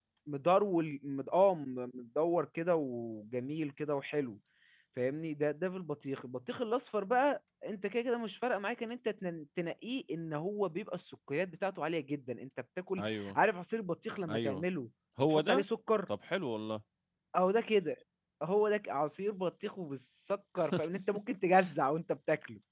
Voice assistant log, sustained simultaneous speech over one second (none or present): none